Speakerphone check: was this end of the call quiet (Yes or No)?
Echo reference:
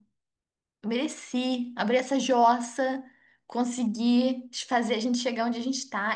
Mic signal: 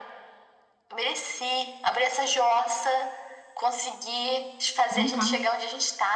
No